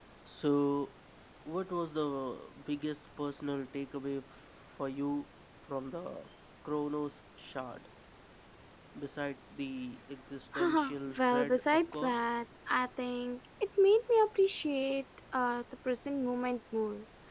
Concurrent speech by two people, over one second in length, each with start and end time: 10.6-12.4

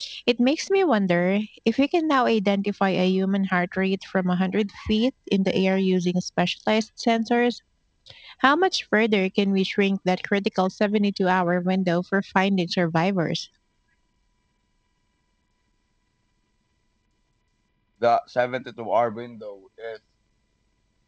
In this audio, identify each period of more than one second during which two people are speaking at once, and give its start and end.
none

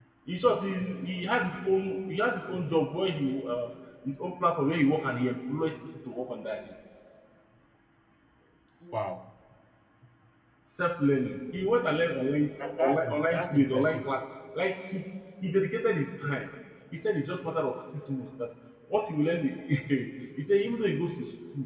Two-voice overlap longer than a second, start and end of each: 12.6-14.1

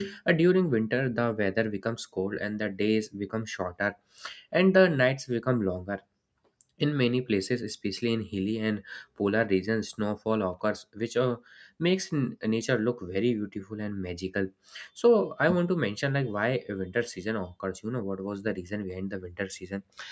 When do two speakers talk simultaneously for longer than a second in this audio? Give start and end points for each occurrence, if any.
none

